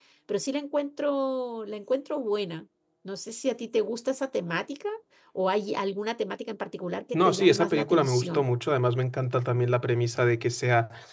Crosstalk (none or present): present